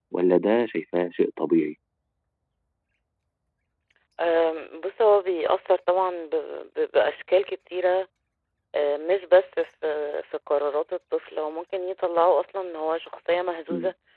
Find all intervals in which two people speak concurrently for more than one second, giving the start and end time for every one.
none

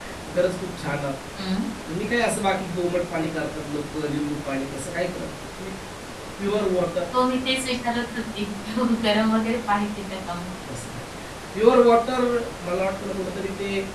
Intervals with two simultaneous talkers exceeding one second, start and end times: none

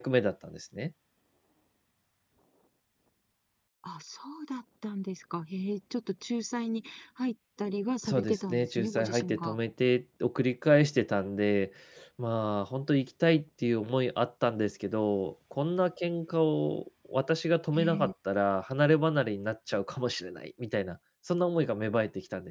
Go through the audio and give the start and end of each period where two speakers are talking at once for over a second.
8.0-9.6

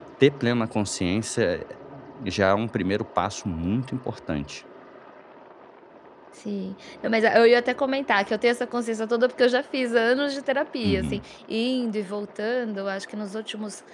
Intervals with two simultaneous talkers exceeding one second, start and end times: none

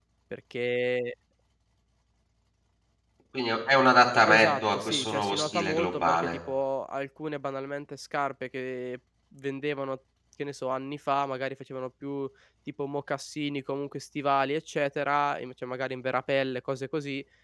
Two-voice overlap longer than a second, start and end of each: 4.3-6.4

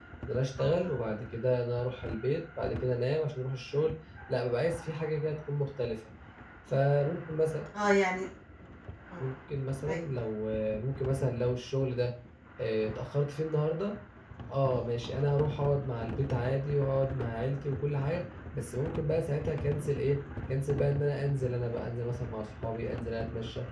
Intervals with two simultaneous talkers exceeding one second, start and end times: none

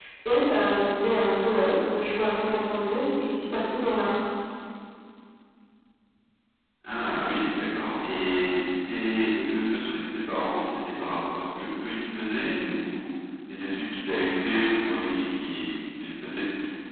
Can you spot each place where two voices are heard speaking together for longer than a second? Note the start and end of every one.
none

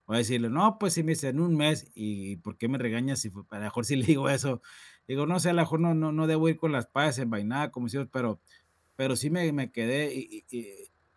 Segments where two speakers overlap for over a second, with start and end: none

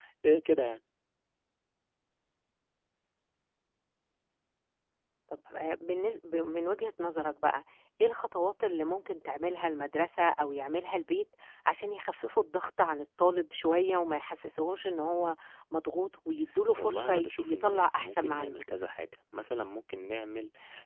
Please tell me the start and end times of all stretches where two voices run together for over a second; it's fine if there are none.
16.8-18.6

